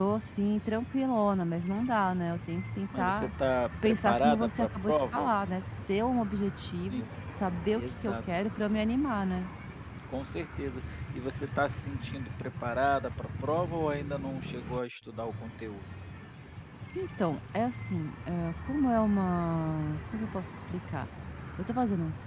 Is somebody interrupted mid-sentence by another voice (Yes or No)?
Yes